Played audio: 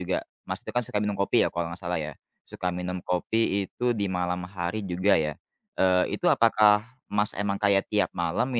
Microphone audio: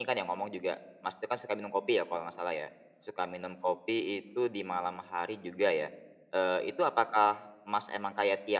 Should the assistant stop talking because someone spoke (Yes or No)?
No